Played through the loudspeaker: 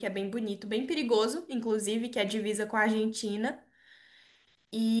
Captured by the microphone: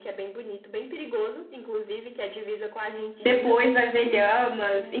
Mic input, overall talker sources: both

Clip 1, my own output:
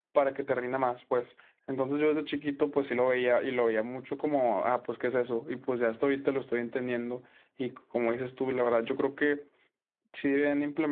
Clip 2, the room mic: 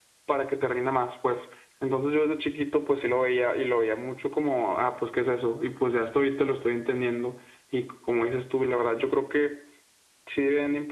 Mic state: echo only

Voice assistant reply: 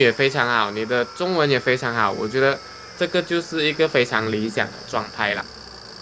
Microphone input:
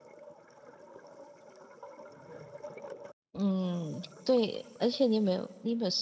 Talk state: user only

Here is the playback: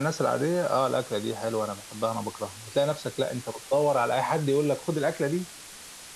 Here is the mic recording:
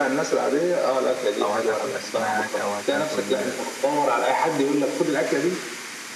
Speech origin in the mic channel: both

